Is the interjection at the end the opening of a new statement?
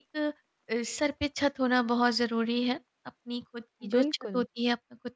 No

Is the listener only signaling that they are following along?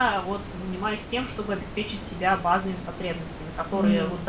Yes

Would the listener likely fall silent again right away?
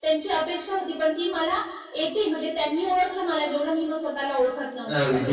No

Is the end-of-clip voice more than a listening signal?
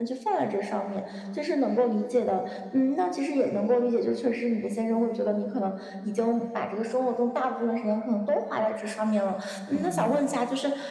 No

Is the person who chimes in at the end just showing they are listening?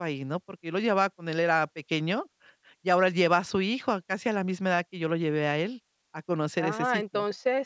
No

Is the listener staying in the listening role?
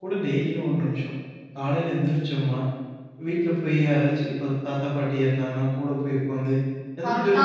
Yes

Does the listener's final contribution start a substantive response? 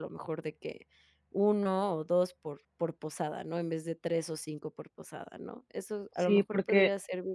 Yes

